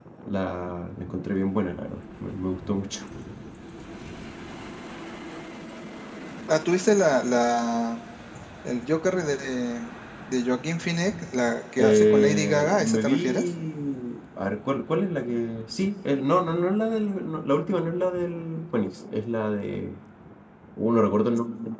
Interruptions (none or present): present